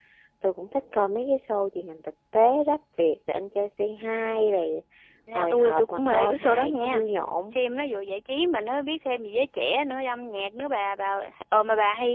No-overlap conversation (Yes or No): No